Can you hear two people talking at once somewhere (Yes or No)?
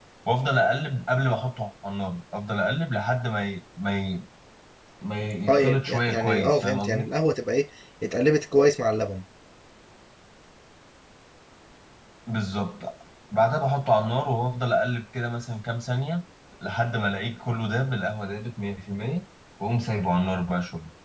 Yes